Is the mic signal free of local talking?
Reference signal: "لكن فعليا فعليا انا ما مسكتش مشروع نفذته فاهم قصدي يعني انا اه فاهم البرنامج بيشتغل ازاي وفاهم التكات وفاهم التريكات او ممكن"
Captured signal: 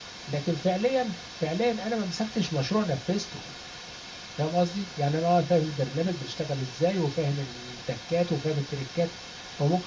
Yes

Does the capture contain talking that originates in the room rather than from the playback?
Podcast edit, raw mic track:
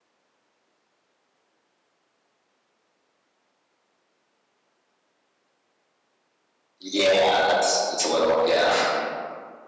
Yes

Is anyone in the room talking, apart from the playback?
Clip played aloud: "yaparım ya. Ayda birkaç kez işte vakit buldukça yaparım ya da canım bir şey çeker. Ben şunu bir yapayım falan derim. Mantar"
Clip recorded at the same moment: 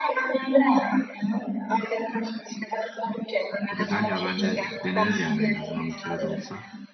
Yes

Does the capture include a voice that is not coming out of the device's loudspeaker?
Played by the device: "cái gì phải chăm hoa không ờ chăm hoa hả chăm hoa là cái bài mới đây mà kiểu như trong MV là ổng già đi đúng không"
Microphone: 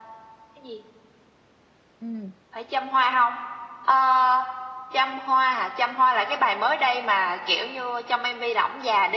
Yes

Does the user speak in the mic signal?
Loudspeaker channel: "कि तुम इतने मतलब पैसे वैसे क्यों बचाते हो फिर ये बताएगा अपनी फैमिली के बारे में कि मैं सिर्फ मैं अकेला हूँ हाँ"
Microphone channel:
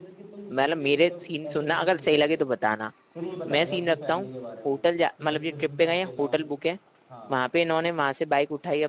Yes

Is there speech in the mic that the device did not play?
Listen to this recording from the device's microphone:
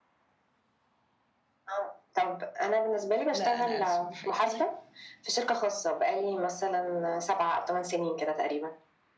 Yes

